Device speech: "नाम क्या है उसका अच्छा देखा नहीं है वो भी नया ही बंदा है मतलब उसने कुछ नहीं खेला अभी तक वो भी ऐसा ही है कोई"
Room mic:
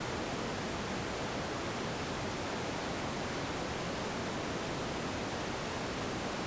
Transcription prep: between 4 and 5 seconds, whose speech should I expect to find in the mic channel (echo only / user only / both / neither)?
neither